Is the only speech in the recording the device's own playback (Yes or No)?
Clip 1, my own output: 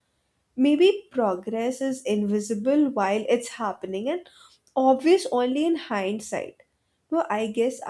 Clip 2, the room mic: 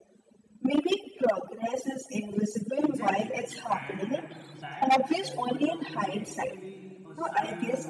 No